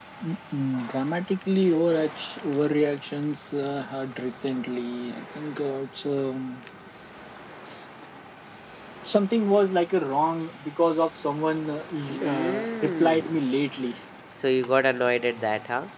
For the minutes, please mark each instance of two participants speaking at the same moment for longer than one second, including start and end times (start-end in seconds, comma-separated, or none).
12.1-13.3